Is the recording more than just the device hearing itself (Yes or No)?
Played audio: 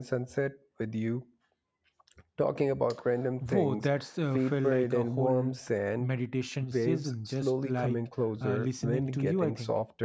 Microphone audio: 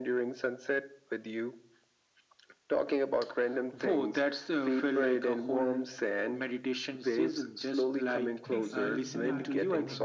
Yes